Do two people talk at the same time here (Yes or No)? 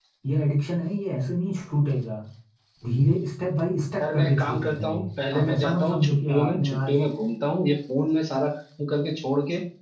Yes